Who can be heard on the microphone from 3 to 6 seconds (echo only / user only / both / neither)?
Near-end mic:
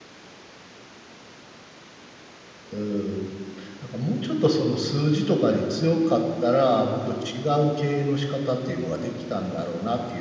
user only